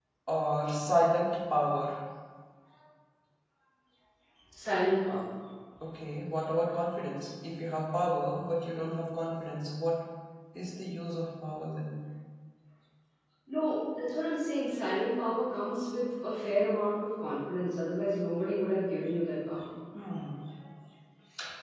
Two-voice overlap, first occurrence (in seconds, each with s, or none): none